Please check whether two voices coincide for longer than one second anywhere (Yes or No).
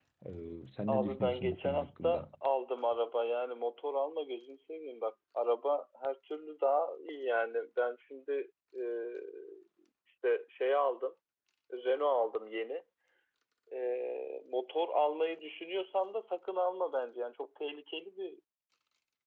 Yes